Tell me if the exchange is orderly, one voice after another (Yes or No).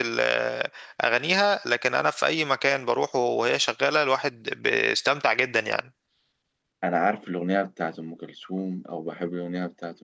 Yes